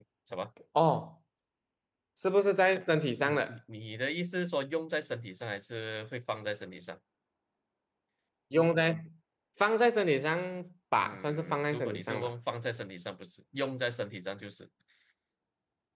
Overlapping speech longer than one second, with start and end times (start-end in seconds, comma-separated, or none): 11.0-12.3